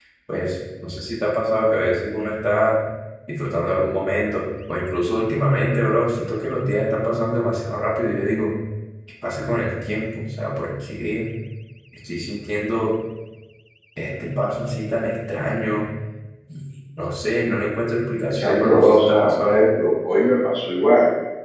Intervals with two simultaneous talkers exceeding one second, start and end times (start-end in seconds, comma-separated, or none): 18.3-19.6